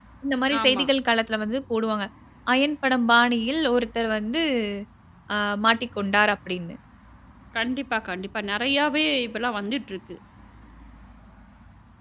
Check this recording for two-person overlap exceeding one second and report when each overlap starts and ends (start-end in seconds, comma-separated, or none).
none